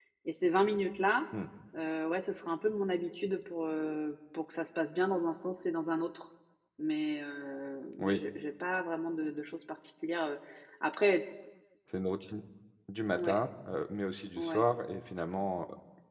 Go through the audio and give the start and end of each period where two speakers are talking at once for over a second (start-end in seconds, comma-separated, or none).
none